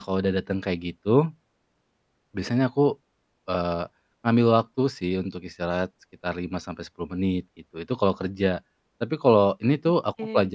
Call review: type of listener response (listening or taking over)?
listening